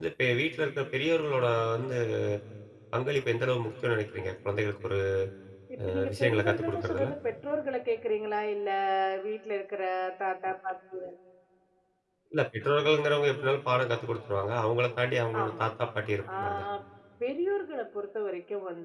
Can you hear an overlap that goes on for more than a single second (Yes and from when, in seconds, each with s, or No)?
Yes, from 5.9 s